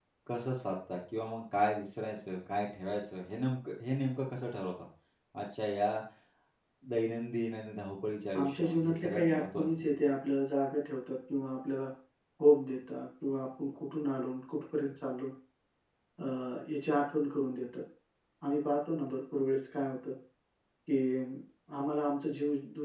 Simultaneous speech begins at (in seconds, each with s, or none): 8.3 s